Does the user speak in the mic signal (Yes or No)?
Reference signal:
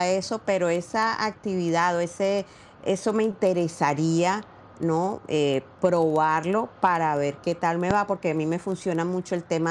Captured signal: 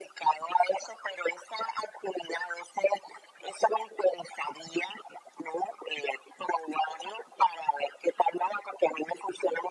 No